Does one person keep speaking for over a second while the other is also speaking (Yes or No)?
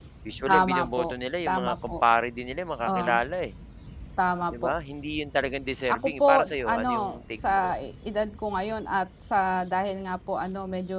Yes